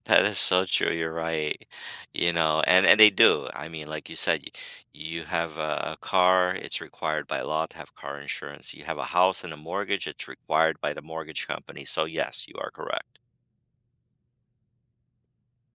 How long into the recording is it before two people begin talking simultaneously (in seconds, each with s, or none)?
none